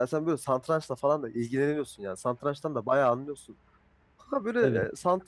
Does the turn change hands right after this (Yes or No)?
No